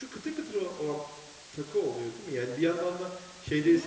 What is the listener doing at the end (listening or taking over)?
listening